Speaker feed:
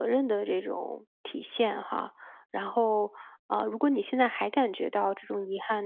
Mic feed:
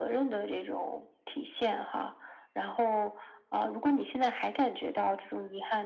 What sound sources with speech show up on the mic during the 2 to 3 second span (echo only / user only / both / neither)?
echo only